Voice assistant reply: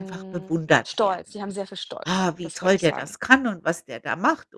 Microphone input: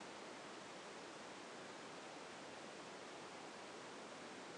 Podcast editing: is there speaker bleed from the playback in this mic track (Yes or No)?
No